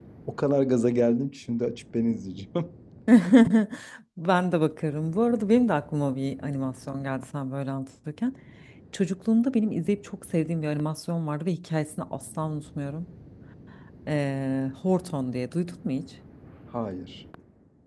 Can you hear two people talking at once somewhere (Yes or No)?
No